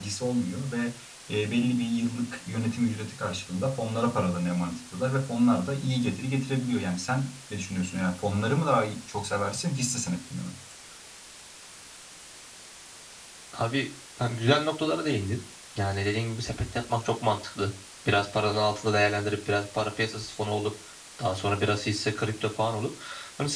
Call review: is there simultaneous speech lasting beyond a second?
No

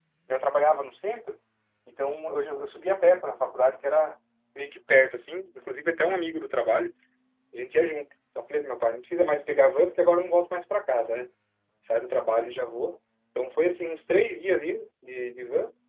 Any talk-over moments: No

